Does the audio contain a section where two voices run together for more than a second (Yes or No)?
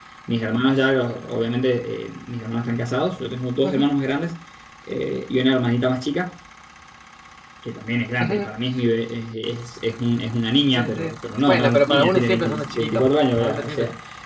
Yes